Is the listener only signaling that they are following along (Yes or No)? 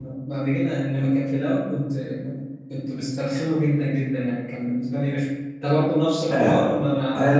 No